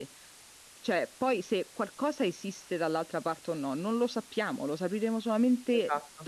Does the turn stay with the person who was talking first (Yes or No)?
Yes